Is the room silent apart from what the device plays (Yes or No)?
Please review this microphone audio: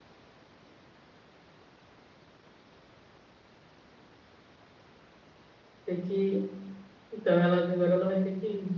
No